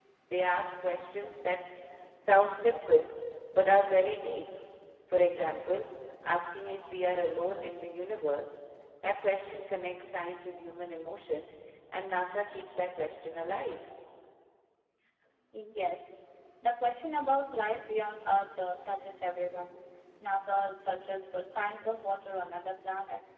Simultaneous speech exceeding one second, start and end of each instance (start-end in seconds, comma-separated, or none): none